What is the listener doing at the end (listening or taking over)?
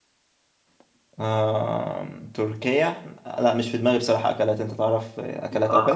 taking over